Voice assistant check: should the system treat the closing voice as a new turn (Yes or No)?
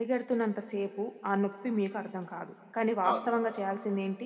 No